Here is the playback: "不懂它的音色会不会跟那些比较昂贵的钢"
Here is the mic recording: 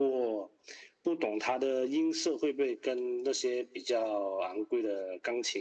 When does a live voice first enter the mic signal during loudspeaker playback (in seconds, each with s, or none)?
none